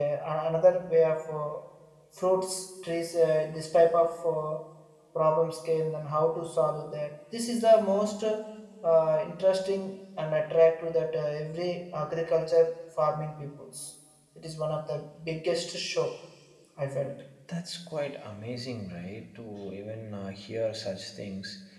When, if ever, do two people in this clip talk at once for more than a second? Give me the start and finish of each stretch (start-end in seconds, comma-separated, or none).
none